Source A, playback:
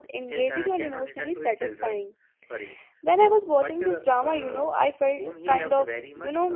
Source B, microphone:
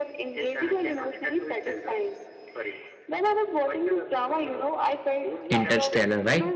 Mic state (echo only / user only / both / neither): both